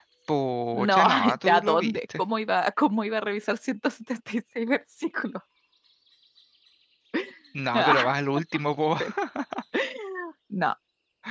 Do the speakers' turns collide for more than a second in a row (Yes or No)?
Yes